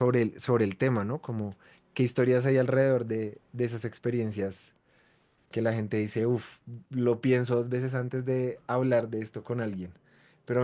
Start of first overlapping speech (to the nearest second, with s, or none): none